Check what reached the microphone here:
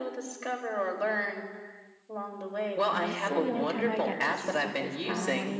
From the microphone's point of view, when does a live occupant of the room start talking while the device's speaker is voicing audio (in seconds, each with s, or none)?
2.9 s